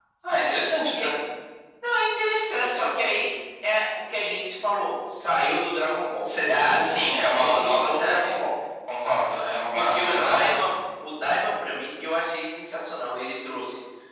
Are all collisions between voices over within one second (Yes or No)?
No